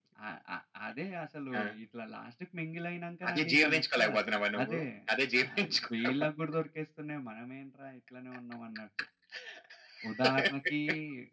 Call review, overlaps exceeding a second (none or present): present